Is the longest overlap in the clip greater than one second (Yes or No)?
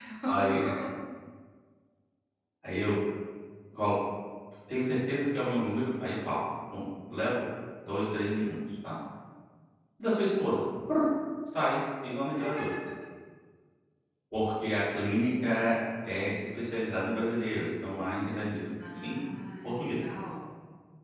No